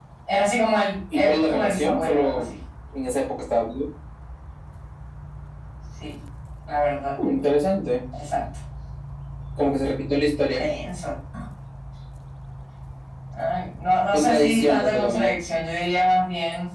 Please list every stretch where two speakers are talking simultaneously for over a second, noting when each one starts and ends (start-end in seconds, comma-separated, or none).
1.1-2.5, 14.1-15.4